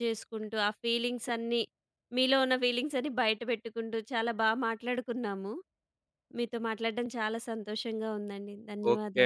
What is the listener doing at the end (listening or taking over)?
taking over